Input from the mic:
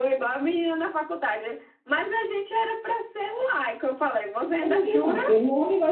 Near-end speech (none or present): present